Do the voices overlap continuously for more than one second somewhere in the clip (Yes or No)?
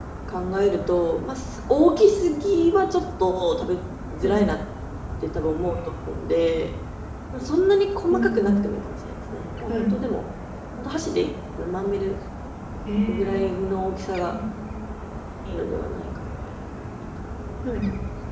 No